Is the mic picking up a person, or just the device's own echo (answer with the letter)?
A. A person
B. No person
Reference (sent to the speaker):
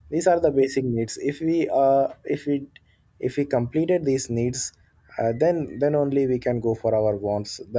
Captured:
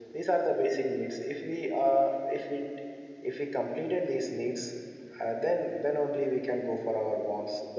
B